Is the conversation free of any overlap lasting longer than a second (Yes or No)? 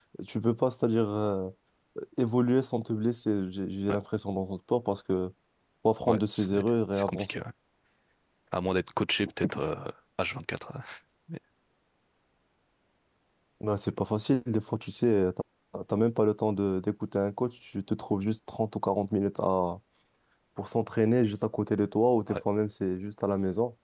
No